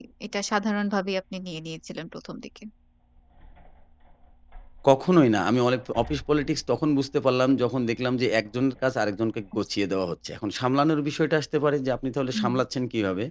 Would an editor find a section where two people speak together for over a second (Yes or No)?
No